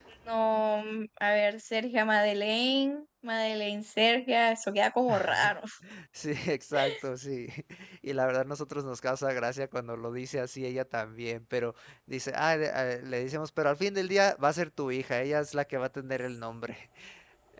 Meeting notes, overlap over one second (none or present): none